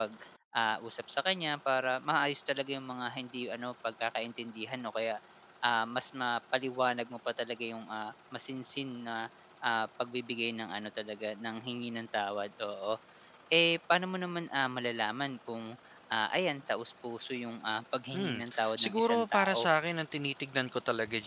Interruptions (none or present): present